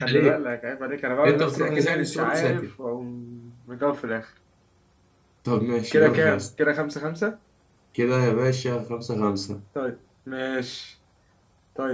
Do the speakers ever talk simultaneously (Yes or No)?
Yes